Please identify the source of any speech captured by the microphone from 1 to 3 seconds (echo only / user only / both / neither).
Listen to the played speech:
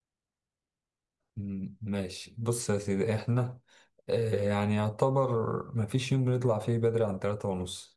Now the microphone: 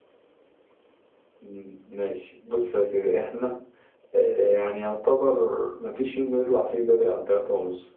echo only